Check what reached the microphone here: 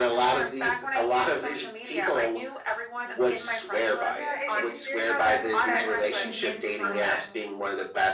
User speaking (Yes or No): Yes